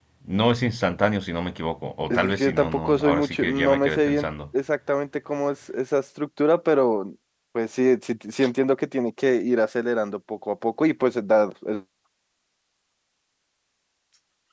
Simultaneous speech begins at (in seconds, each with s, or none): 2.1 s